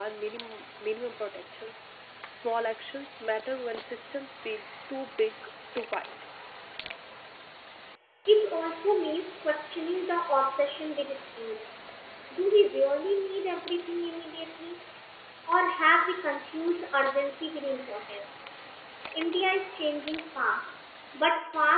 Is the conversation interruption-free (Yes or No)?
Yes